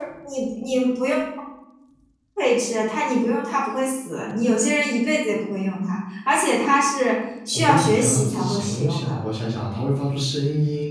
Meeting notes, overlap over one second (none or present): present